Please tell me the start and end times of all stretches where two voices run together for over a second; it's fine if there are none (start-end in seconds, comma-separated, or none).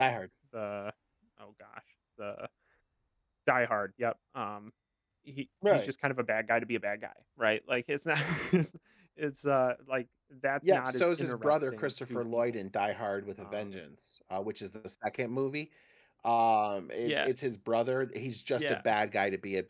10.7-12.4